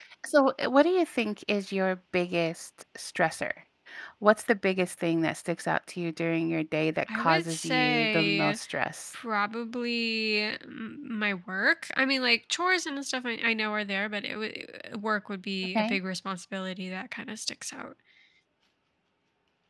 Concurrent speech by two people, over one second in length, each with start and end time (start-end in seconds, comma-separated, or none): 7.1-8.6